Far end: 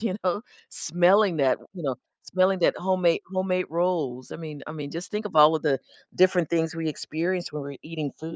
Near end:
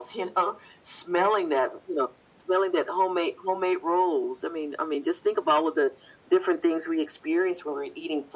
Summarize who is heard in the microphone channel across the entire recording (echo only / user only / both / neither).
echo only